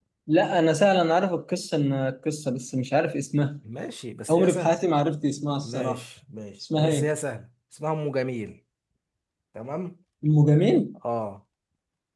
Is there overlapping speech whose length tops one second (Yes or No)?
No